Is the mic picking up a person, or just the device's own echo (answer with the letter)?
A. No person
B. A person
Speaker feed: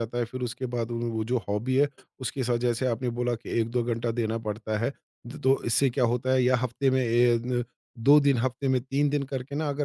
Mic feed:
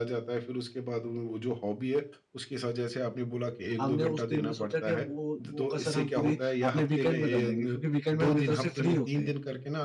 B